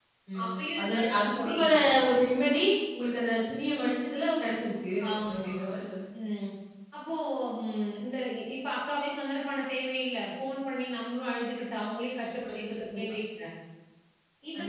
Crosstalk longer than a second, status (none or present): present